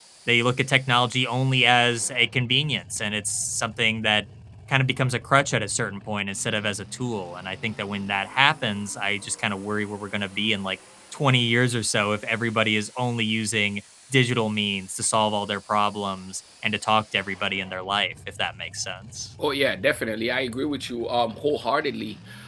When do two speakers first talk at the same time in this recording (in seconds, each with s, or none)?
none